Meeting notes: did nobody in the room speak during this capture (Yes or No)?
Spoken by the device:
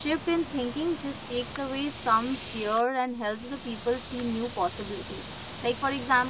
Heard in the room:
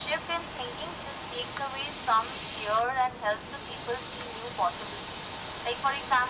Yes